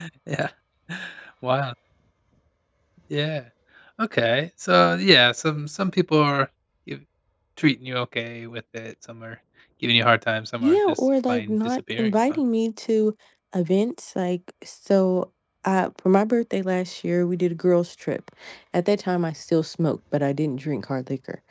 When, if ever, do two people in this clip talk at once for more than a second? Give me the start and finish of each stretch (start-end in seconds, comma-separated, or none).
10.6-12.4